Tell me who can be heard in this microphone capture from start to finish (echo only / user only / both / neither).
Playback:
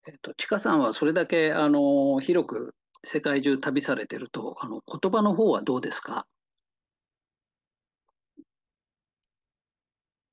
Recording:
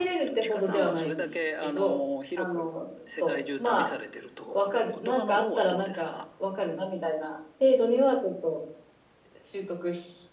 both